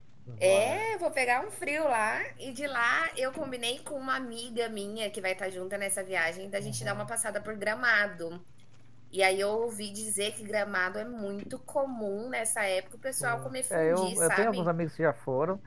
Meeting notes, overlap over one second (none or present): present